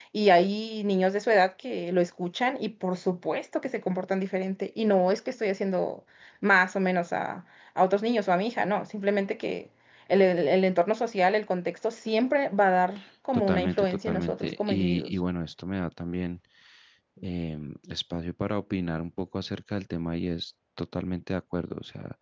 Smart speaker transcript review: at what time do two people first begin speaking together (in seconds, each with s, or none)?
13.3 s